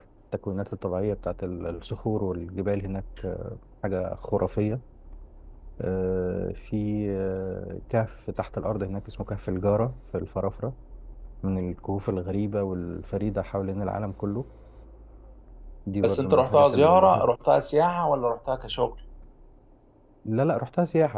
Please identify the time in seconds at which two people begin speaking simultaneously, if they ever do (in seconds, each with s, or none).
16.0 s